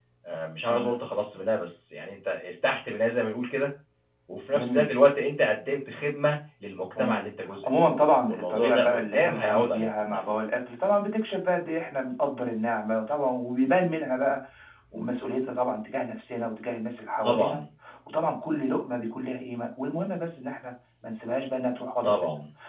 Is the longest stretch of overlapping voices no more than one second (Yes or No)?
No